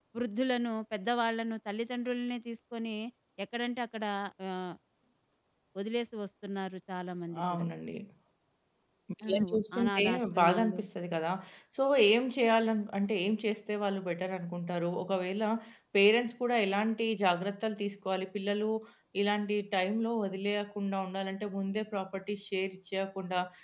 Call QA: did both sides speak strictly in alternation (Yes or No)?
No